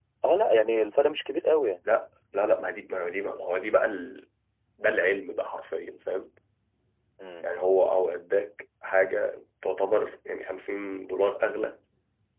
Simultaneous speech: No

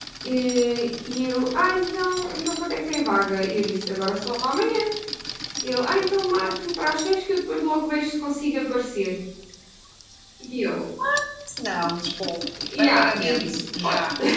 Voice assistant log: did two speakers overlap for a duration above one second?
Yes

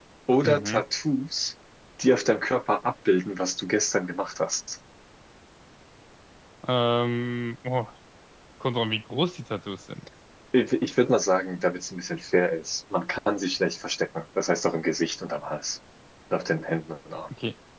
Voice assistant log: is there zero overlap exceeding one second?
Yes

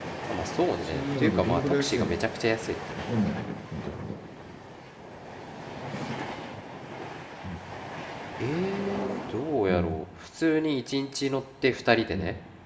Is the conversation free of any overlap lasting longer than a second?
No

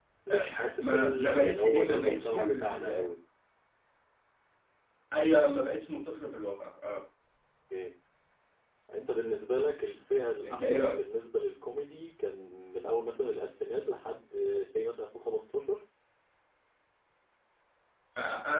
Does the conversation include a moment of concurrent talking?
Yes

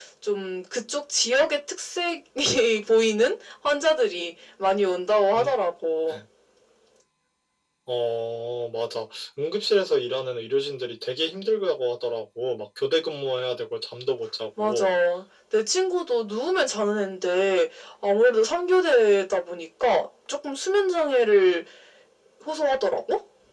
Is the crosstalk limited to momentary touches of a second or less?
Yes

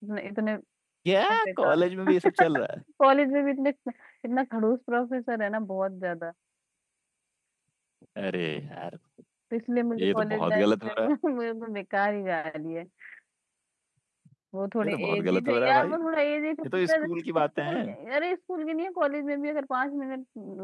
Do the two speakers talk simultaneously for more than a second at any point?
Yes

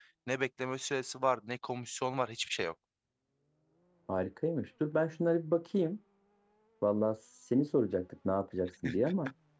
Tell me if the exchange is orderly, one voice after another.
Yes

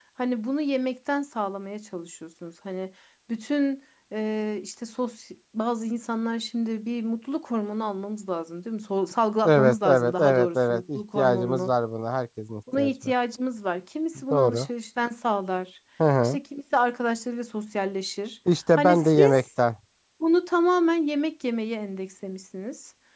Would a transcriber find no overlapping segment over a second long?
No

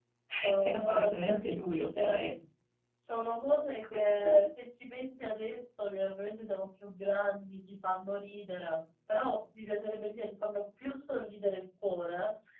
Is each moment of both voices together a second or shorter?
No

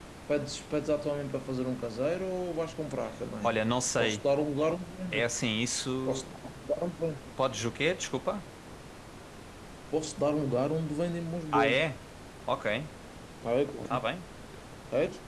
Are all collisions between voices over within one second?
Yes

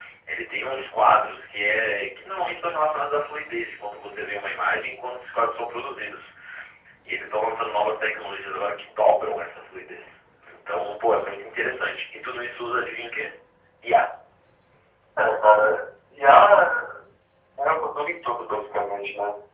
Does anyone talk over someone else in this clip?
No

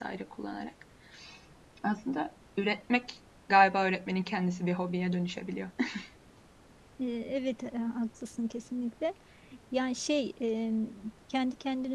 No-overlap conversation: Yes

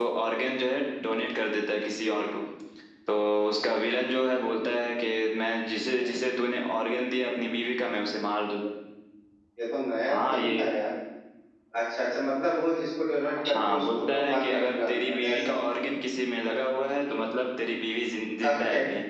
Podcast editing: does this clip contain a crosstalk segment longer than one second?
Yes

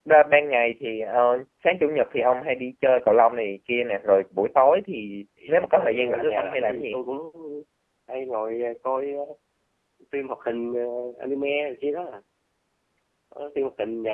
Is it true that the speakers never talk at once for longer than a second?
No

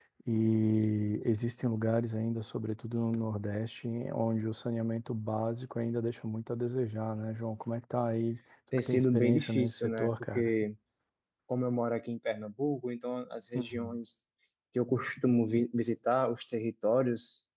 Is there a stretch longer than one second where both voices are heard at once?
Yes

